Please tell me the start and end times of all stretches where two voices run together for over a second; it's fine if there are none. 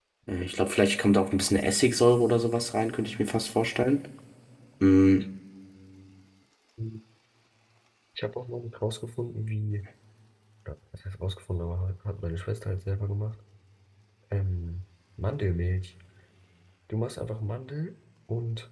none

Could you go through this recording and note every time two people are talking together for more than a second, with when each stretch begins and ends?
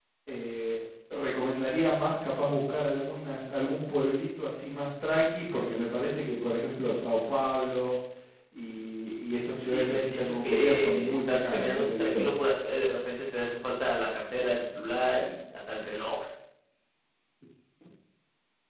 9.7-12.4

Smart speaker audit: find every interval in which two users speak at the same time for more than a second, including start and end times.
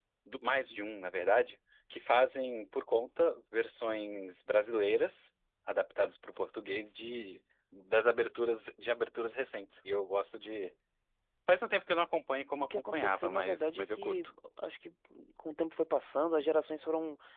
12.6-14.2

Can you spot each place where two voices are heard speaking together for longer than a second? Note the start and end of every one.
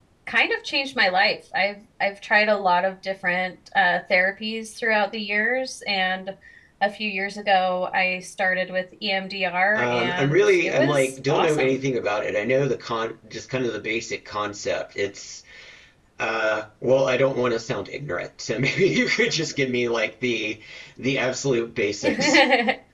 9.8-11.8

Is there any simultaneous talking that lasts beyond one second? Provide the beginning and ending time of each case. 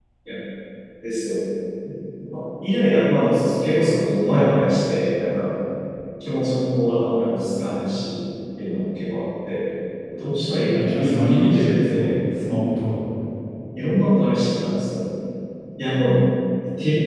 10.7-12.1

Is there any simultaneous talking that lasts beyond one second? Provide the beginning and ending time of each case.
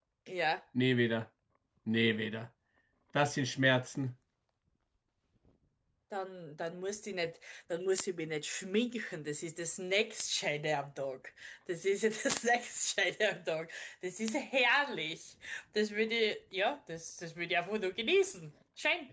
none

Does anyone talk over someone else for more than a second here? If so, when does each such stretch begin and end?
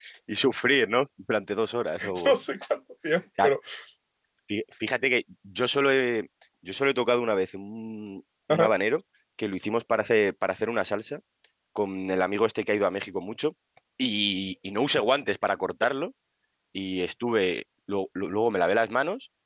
none

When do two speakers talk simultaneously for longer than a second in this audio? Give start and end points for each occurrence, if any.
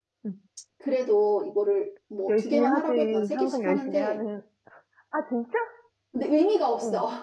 2.3-4.2

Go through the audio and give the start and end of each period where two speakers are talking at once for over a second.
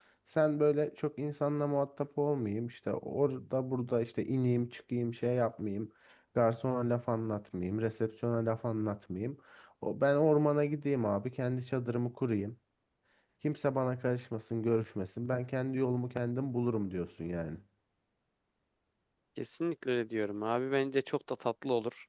none

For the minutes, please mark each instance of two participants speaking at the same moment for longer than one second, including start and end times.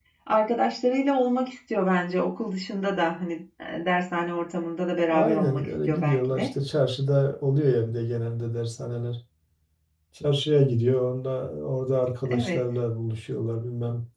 5.1-6.5

